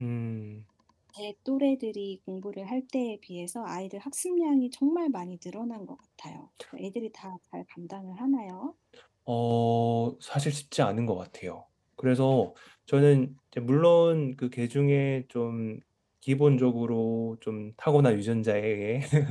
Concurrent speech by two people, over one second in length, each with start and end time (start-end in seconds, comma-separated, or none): none